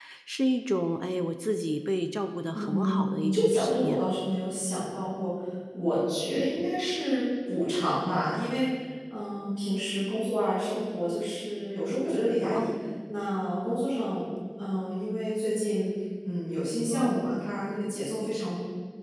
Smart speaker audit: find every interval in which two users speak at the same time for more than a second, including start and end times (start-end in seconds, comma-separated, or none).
2.5-4.0